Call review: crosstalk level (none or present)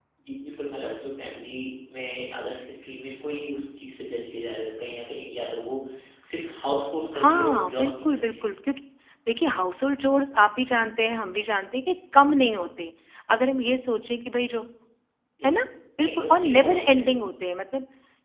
present